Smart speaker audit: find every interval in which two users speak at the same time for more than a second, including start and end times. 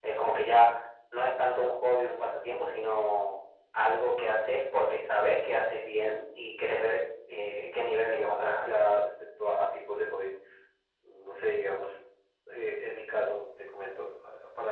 7.3-8.7

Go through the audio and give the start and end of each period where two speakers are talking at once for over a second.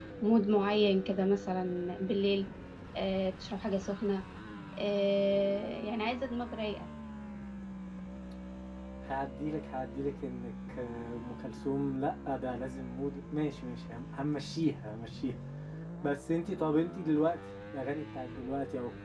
none

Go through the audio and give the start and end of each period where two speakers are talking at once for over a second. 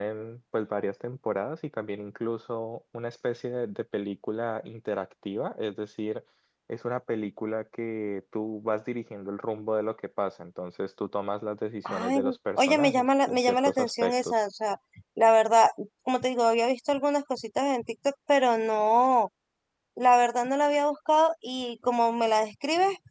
11.8-14.4

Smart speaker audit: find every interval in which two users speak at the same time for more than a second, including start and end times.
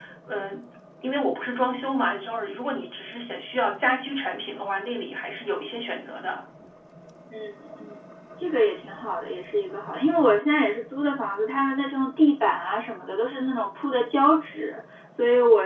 none

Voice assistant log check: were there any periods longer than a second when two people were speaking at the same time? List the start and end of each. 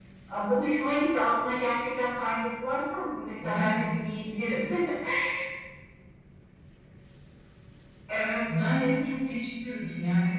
none

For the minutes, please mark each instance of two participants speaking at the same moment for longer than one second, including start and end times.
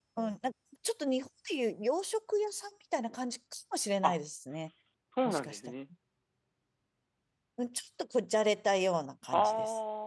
none

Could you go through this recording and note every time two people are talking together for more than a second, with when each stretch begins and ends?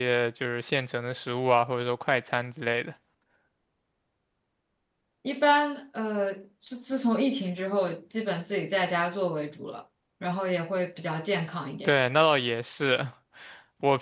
none

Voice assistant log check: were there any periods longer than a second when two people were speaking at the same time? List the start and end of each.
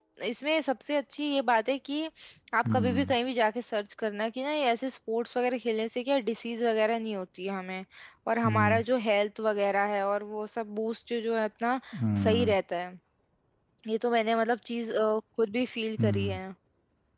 none

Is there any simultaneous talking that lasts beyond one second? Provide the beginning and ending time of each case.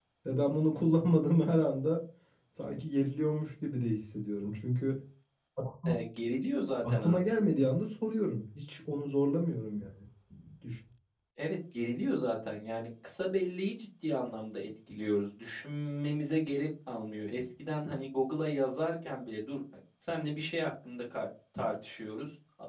none

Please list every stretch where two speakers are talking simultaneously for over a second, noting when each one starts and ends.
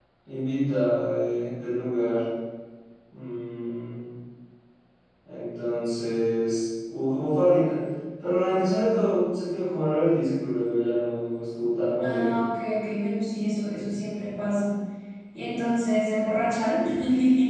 none

